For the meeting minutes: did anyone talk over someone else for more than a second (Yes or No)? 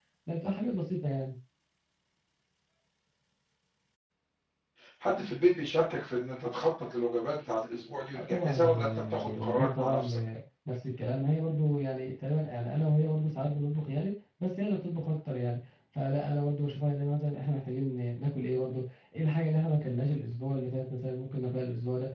Yes